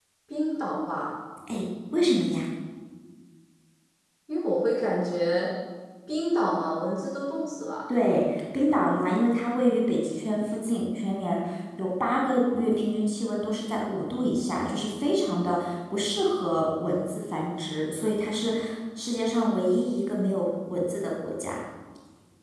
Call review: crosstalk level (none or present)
none